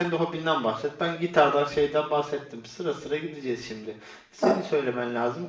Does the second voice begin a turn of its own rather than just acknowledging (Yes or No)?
No